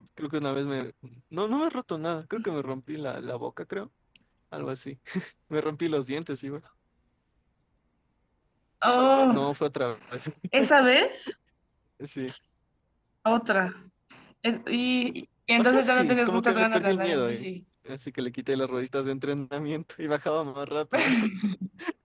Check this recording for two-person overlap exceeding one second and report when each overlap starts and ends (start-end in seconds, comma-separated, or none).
15.6-17.5